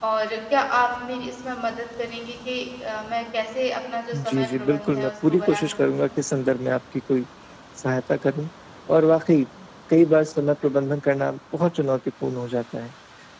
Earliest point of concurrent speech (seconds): 4 s

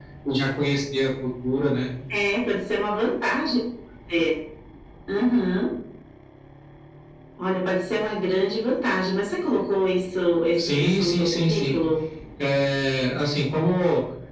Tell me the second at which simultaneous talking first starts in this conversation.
11 s

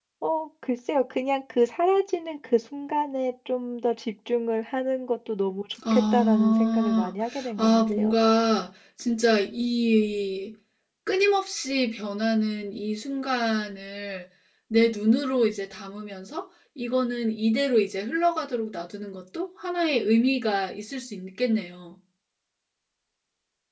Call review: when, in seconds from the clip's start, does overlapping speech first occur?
6 s

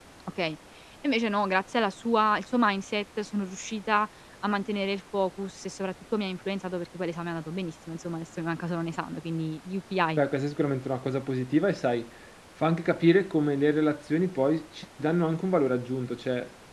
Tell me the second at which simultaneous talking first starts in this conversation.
none

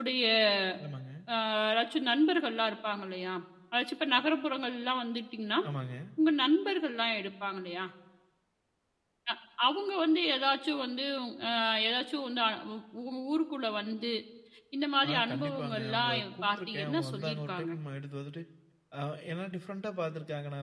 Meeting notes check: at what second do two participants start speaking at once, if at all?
15 s

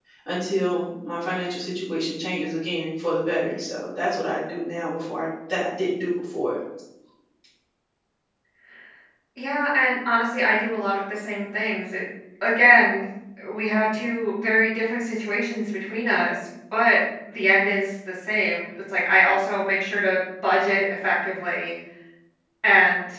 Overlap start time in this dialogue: none

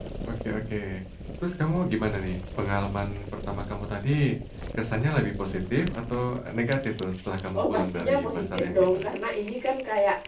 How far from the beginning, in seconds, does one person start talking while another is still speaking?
8 s

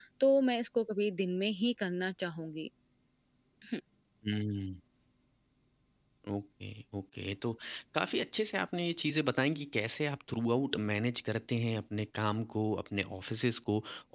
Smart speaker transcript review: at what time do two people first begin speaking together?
none

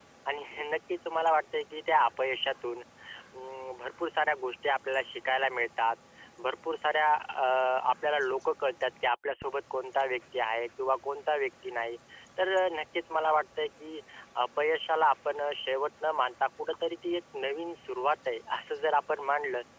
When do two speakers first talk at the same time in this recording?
none

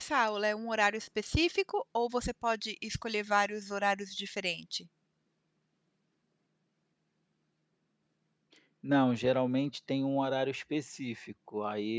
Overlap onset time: none

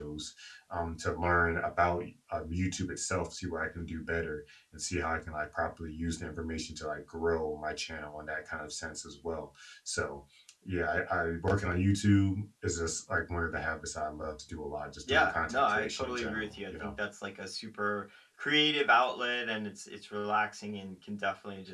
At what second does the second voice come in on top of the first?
15 s

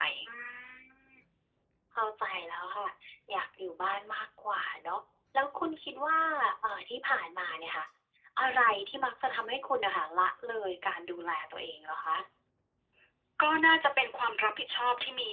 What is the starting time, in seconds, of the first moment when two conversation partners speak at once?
none

